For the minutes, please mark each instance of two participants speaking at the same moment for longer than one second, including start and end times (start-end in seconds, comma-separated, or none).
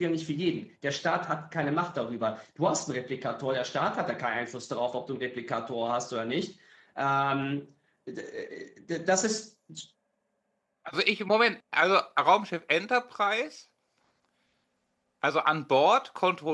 none